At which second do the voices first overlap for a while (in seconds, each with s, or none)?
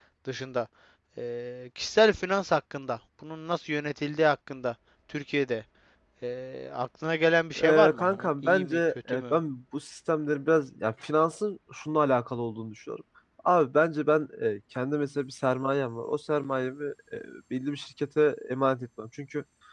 7.6 s